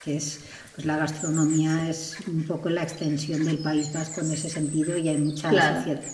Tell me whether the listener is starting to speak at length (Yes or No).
No